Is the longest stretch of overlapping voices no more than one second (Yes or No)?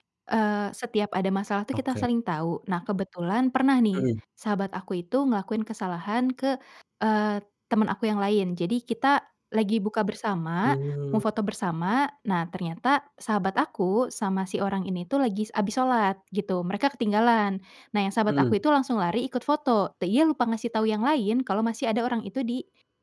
Yes